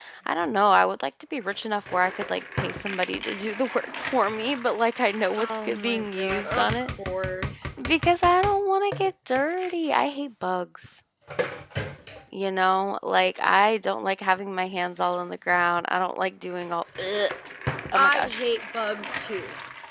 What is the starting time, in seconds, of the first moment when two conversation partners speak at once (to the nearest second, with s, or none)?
5 s